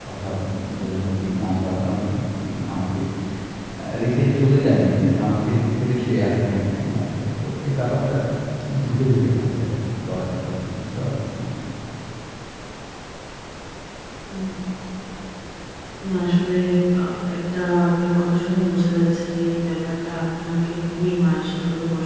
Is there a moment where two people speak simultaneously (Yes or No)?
No